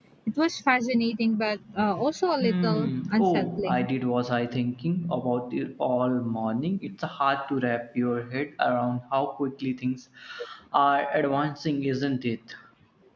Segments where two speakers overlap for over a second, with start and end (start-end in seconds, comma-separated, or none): 2.4-3.9